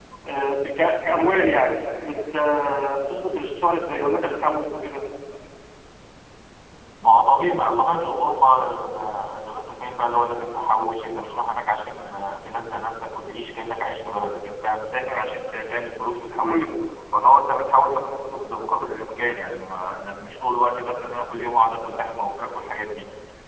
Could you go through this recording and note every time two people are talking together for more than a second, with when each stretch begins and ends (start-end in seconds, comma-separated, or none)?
none